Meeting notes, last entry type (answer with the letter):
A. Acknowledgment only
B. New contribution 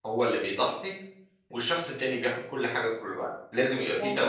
B